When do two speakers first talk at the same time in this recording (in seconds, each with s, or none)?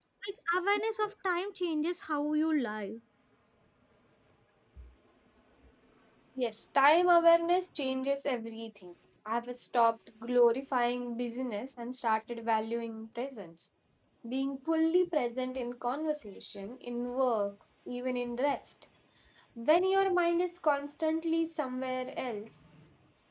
none